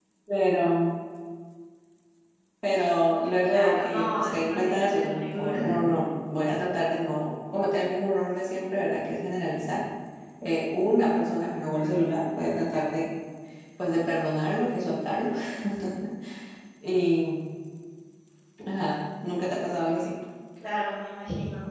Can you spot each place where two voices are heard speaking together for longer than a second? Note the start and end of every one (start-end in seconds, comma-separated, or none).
3.2-5.6